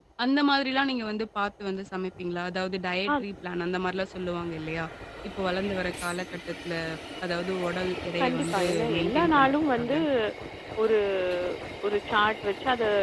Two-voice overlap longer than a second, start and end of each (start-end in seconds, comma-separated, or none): 8.2-9.9